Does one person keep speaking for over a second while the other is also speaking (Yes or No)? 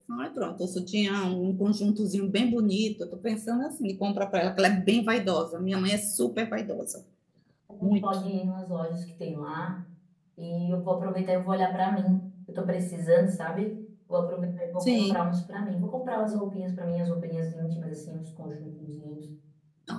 No